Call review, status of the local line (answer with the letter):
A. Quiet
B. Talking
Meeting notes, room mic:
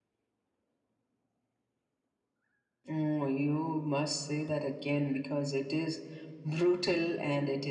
A